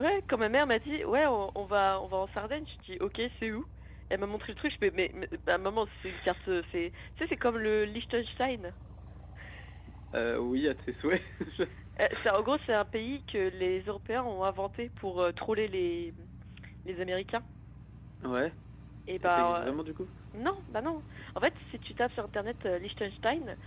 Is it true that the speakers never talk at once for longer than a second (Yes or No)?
Yes